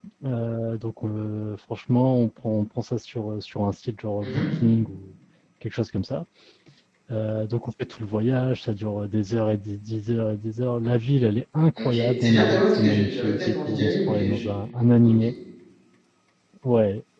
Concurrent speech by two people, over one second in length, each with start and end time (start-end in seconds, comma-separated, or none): 11.8-14.4